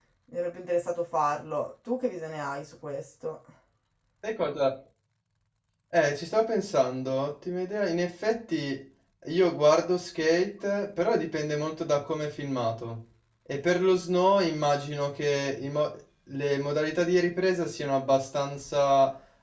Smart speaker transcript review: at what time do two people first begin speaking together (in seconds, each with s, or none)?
none